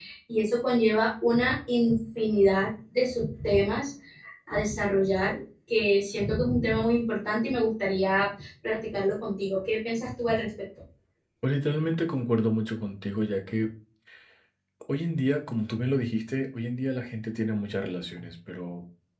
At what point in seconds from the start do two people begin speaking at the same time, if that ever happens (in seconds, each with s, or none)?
none